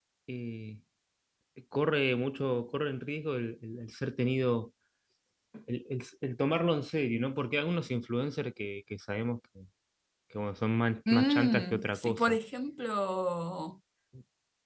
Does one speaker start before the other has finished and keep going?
Yes, from 11.1 s

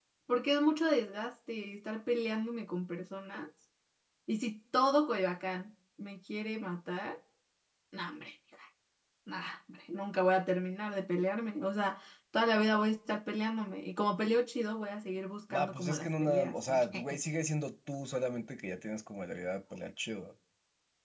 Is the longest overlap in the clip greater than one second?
Yes, from 15.5 s

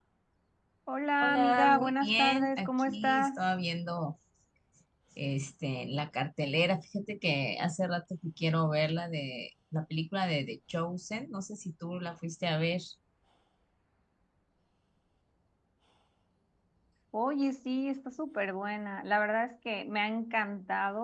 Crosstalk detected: Yes, from 1.2 s

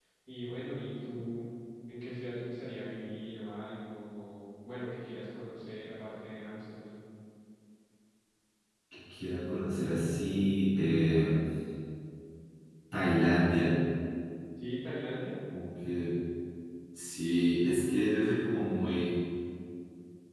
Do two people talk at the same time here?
No

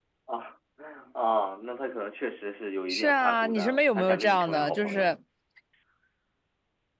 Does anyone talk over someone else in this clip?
Yes, from 2.9 s

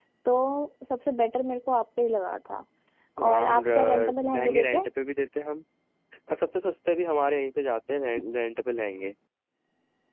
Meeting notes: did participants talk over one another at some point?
Yes, from 3.2 s

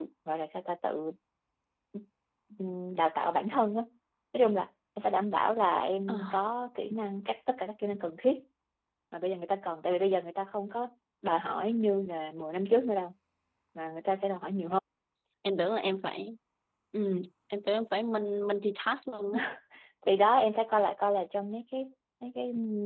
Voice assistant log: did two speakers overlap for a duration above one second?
No

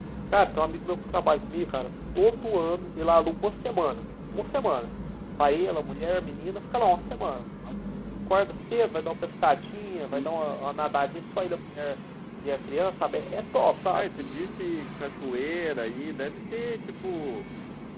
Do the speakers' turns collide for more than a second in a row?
No

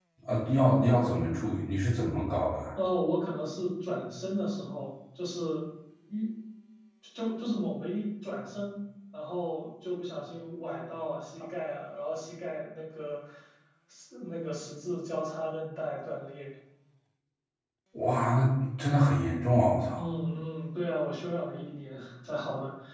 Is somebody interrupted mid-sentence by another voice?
No

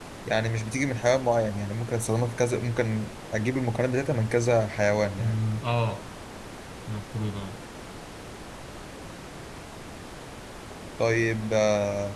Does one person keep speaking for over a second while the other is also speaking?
No

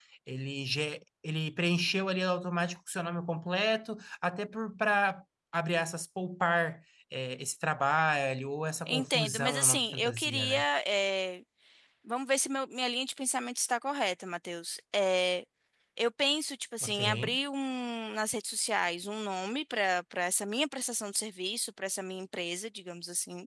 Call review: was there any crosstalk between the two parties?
Yes, from 8.9 s

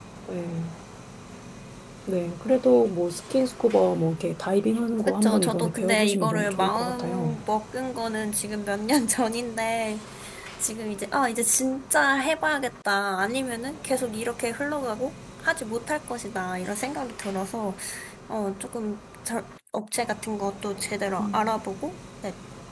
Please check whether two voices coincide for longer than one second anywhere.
Yes, from 5.1 s

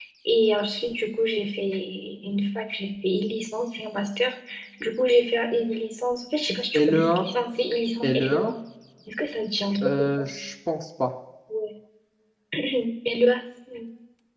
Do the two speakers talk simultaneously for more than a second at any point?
No

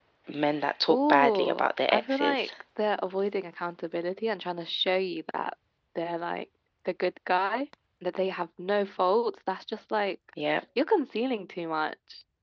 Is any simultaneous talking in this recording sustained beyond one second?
Yes, from 0.9 s

